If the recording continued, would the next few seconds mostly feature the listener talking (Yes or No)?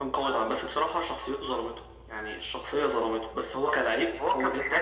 Yes